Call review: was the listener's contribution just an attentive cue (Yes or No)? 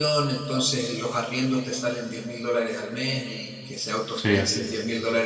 Yes